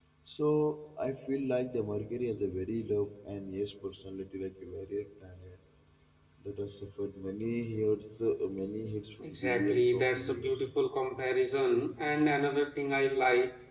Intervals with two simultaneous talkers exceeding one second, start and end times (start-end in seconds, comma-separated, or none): 9.2-10.6